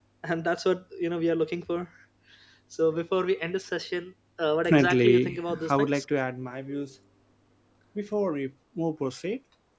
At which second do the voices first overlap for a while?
4.6 s

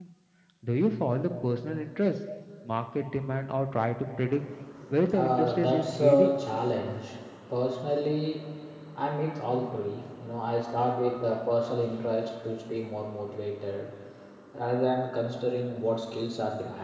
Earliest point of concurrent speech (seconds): 5.2 s

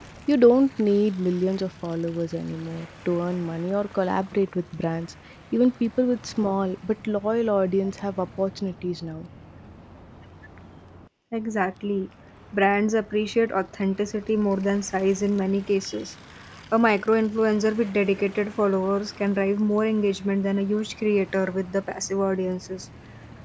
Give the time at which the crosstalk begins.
none

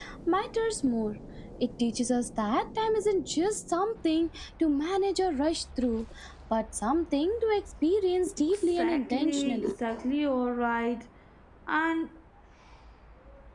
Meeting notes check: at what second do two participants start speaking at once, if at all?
8.5 s

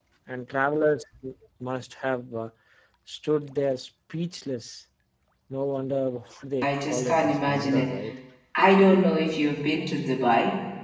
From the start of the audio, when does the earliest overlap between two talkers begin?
6.6 s

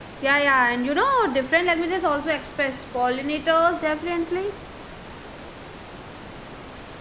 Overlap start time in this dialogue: none

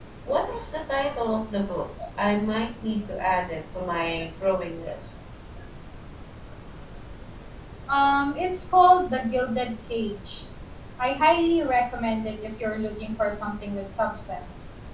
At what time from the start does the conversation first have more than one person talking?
none

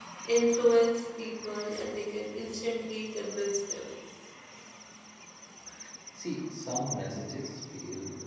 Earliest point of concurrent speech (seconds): none

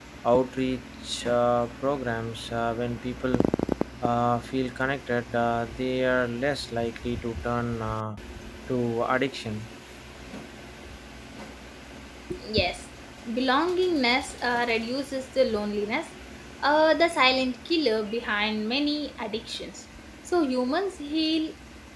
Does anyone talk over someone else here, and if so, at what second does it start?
none

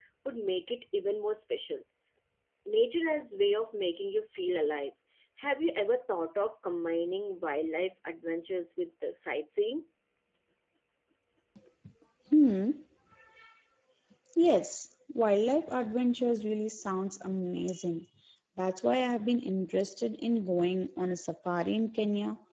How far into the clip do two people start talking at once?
none

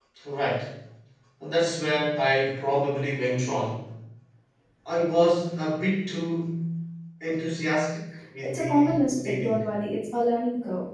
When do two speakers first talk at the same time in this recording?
8.4 s

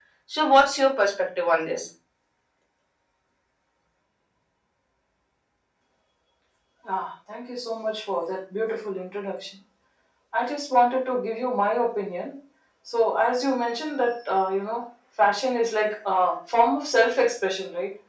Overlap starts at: none

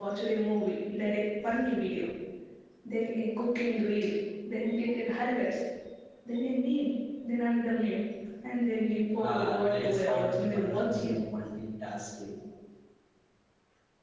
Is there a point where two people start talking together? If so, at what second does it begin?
9.2 s

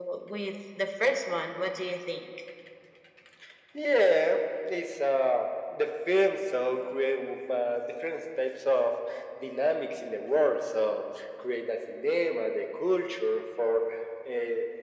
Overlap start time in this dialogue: none

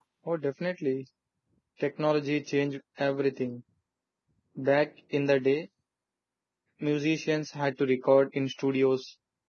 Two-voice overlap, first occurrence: none

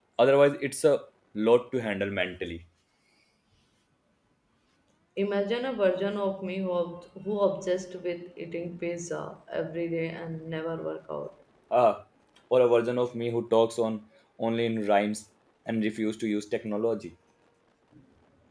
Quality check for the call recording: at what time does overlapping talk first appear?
none

